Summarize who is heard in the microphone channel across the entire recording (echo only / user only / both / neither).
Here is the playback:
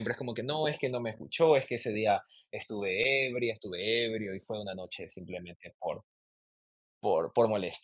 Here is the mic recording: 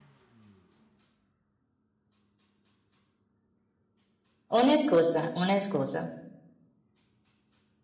user only